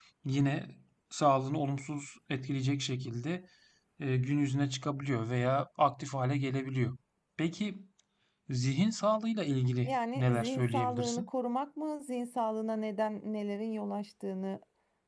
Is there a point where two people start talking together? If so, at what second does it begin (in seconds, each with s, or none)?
9.8 s